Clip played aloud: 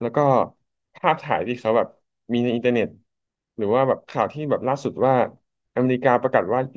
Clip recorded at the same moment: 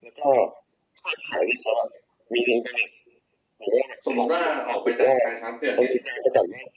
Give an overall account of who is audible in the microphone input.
both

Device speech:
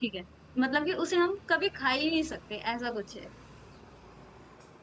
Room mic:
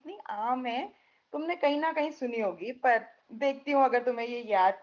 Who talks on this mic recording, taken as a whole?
user only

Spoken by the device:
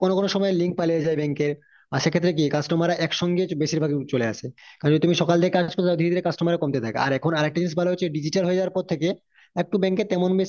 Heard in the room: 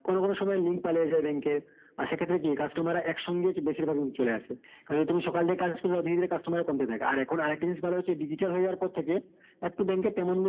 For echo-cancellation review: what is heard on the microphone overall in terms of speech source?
echo only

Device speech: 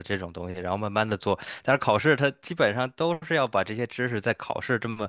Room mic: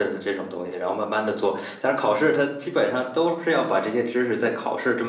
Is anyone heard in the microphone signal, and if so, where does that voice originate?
echo only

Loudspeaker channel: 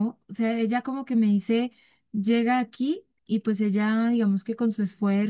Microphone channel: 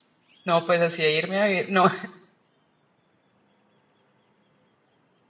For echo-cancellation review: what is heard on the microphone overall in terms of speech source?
user only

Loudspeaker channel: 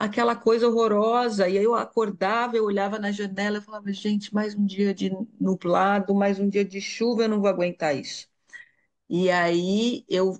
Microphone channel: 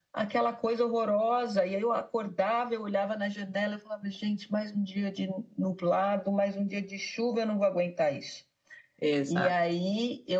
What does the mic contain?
both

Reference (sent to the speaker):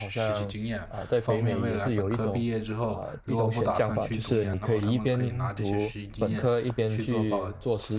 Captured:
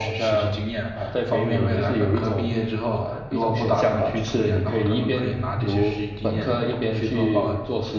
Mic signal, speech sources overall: echo only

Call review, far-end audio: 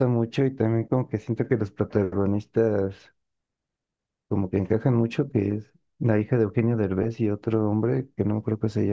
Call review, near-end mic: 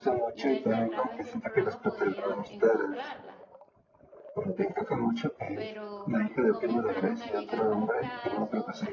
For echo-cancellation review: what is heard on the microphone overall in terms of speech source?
both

